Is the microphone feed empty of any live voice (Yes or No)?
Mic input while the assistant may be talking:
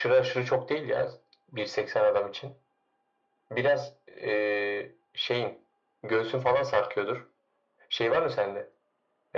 Yes